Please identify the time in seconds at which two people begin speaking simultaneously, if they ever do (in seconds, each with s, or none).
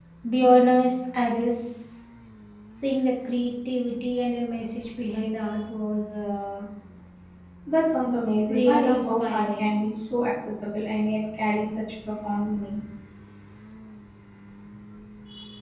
8.5 s